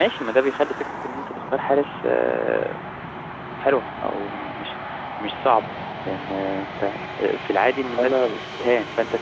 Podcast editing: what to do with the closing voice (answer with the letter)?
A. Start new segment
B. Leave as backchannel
B